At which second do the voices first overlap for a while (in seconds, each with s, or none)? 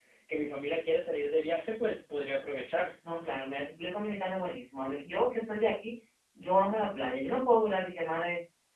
none